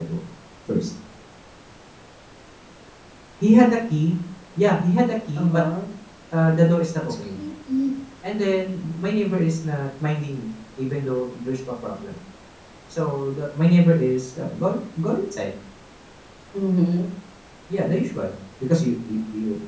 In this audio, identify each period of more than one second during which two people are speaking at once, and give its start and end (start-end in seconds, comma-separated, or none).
none